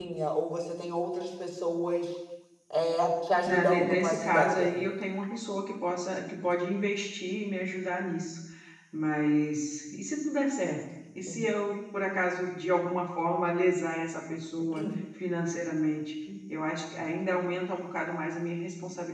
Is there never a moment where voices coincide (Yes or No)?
No